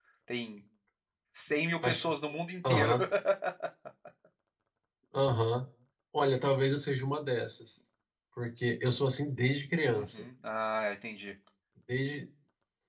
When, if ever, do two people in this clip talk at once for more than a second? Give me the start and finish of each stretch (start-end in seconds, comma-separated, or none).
none